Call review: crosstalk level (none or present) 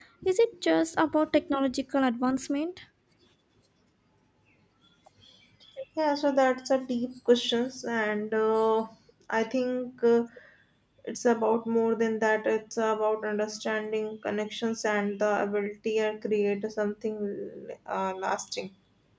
none